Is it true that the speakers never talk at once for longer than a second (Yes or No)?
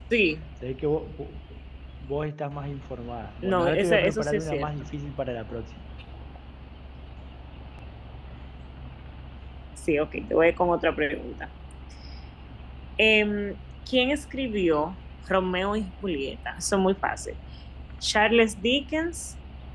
No